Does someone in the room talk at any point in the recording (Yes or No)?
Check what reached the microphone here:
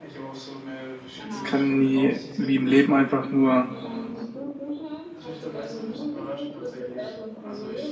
Yes